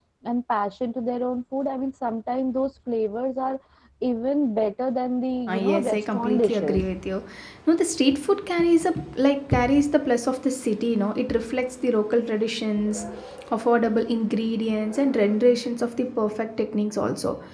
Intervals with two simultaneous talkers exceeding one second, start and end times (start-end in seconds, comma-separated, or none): 5.5-6.8